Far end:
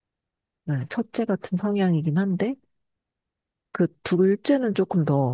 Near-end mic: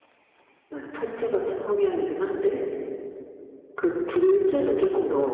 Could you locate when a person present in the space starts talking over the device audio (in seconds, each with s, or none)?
none